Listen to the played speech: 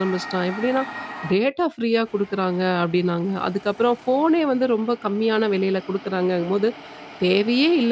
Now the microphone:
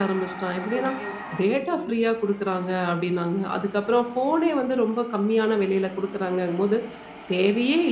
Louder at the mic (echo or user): echo